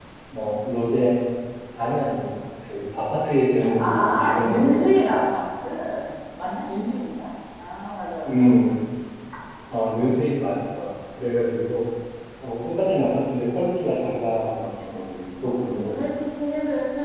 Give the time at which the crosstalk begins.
4 s

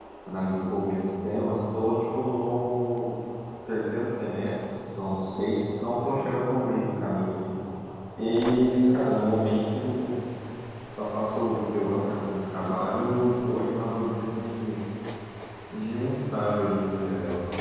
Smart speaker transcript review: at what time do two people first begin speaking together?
none

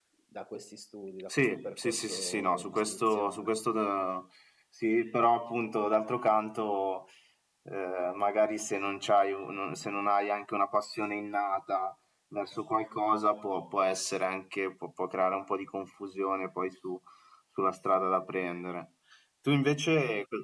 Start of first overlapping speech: 1 s

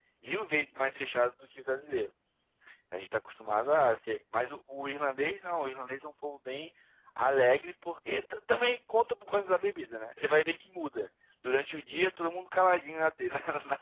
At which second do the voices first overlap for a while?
none

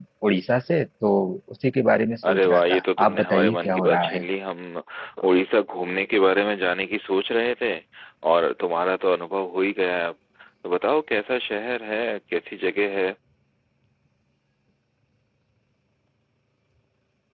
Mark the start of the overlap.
2 s

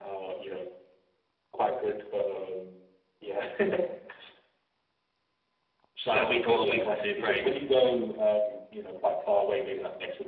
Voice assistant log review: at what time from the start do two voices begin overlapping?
6 s

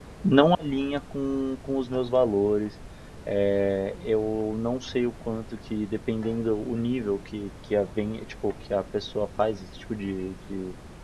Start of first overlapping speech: none

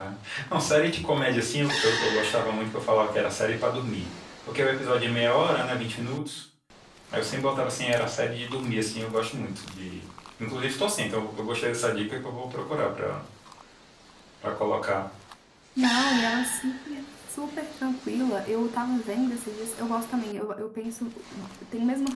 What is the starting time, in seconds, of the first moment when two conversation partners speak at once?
none

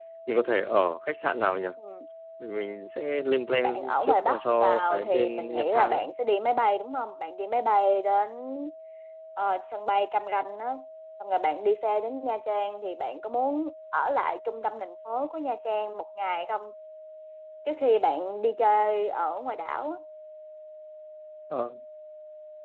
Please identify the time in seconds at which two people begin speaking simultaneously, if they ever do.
4 s

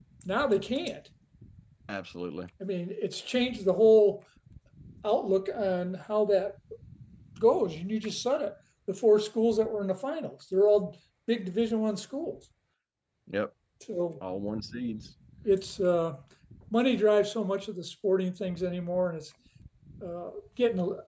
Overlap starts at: none

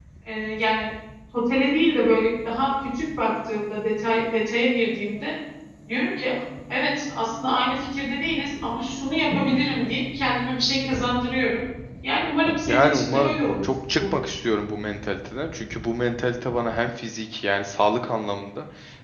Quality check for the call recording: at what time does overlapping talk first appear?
13 s

